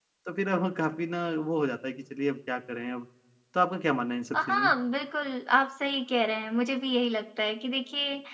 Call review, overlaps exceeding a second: none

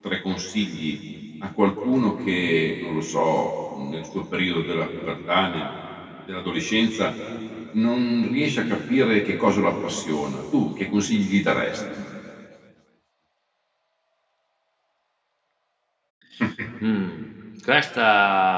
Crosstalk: none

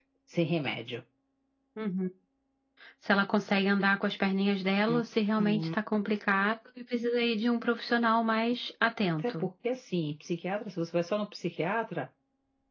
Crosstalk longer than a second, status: none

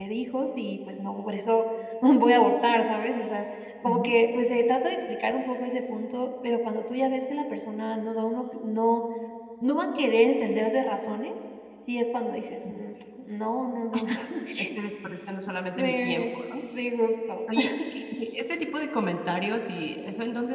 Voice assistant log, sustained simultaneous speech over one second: none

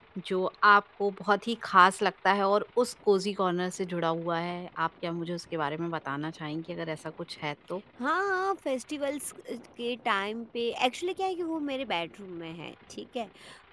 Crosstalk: none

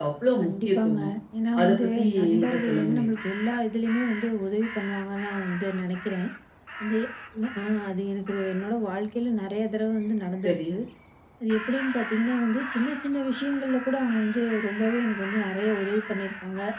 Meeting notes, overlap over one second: present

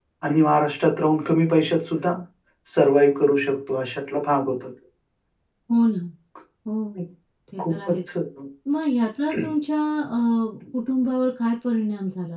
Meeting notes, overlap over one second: none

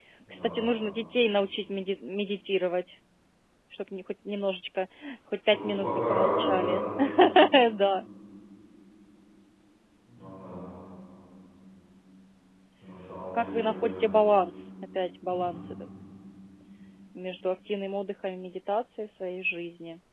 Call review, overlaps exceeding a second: present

